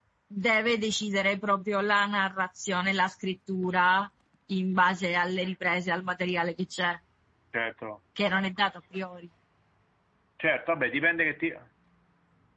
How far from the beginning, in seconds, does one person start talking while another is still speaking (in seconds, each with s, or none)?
none